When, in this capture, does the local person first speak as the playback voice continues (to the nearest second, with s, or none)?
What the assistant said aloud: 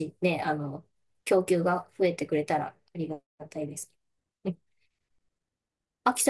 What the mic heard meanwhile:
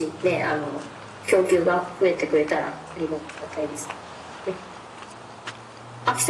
none